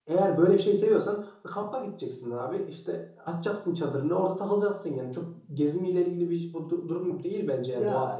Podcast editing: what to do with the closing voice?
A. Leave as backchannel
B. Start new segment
B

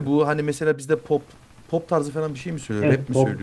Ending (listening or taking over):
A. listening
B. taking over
B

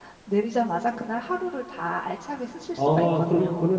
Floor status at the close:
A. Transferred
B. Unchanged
A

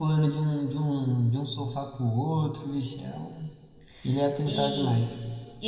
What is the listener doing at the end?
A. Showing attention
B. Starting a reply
B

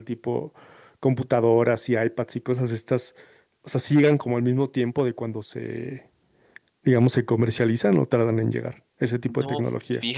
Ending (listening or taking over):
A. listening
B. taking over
B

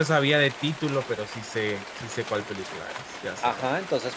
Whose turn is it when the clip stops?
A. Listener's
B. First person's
A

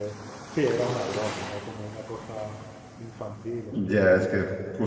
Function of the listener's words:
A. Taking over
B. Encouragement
A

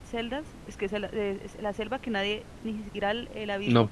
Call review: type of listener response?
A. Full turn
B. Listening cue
A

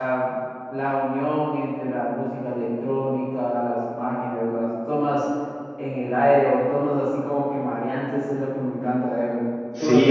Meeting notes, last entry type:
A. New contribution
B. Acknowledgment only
A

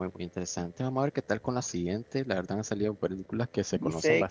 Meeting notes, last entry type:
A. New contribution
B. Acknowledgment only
A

